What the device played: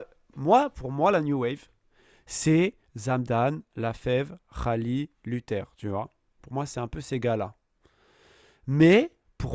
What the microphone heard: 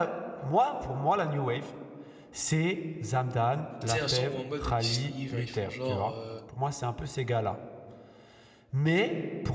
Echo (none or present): present